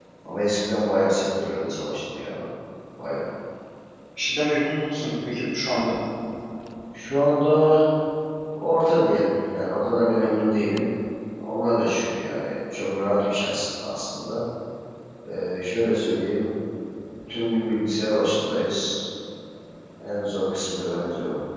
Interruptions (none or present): none